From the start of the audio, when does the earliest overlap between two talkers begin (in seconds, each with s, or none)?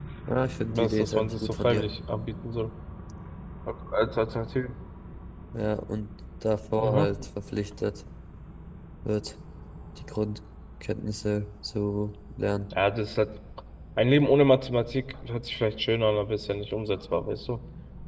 0.6 s